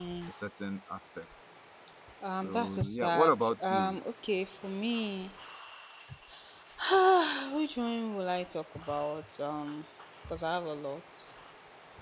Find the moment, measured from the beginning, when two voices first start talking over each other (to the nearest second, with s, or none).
2 s